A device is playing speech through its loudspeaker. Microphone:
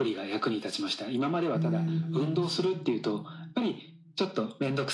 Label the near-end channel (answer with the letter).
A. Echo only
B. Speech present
B